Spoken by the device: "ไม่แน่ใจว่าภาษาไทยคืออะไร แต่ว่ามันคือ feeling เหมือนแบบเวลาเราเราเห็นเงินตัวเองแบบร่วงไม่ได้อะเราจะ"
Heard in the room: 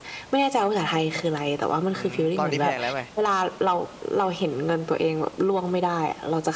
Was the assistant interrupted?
Yes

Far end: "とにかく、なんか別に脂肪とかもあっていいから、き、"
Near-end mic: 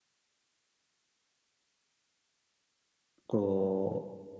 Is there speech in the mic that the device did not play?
Yes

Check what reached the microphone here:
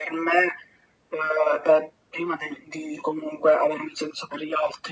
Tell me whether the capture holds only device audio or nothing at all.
Yes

